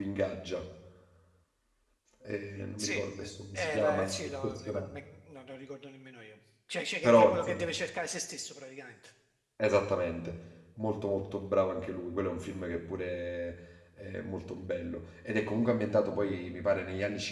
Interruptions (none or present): present